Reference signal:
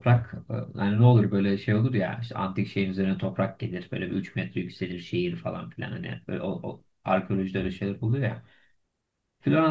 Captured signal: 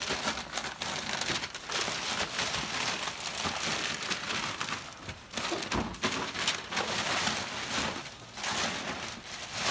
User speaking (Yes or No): No